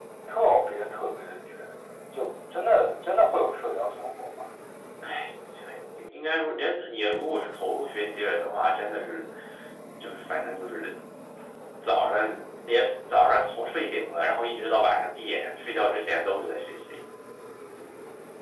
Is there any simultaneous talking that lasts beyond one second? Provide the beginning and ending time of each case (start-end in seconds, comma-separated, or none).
none